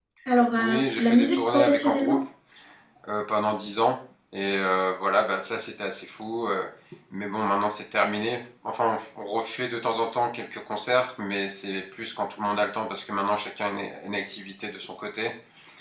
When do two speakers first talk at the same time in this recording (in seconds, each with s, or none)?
0.6 s